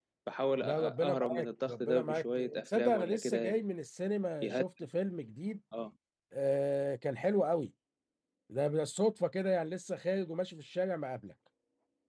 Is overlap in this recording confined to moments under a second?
No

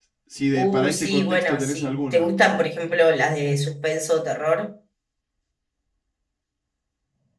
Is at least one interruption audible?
Yes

